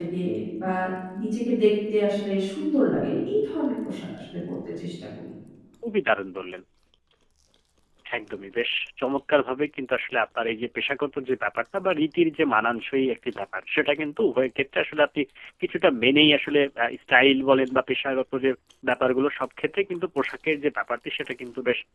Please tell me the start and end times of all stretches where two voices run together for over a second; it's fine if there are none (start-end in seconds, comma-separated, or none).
none